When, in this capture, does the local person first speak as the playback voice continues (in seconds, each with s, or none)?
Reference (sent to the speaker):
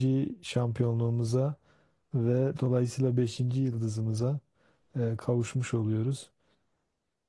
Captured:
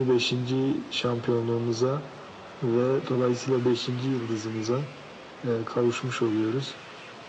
none